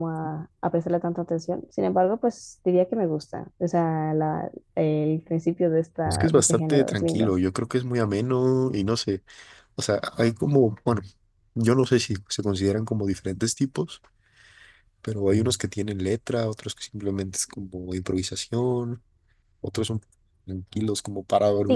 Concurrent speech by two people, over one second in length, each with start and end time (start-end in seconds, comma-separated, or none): 6.0-7.3